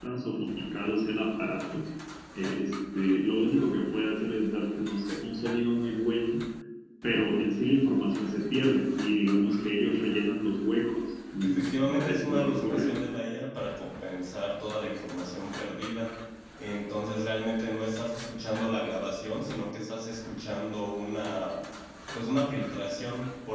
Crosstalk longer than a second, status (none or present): present